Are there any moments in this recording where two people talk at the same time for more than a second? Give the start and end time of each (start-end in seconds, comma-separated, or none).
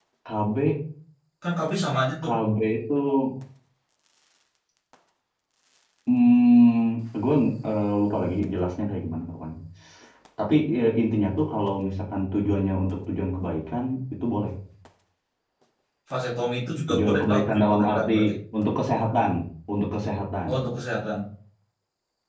16.9-18.2